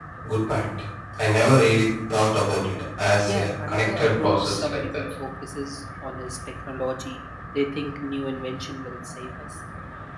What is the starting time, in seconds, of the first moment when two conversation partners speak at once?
3.2 s

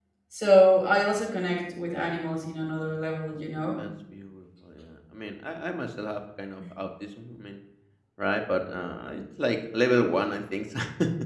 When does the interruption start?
none

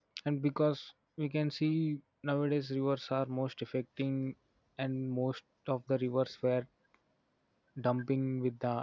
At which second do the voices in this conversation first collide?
none

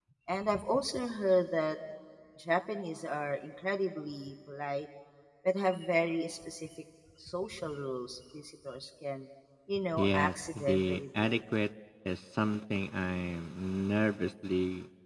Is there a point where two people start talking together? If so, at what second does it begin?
10.0 s

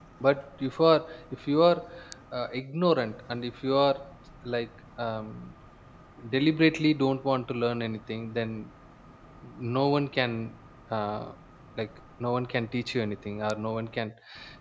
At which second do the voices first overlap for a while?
none

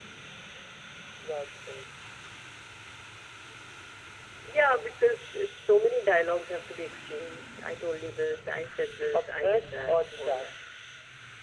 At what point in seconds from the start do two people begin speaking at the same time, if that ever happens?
9.1 s

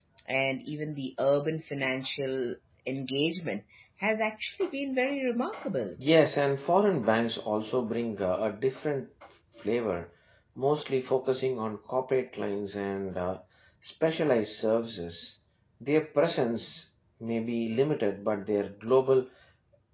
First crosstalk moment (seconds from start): none

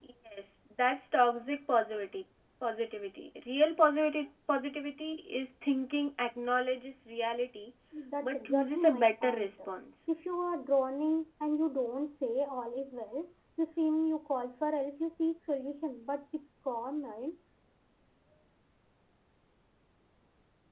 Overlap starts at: 8.2 s

